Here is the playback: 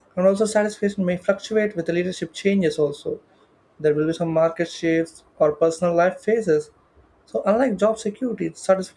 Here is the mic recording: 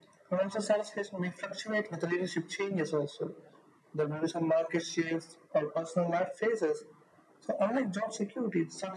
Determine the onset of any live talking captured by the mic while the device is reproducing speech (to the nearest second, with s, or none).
none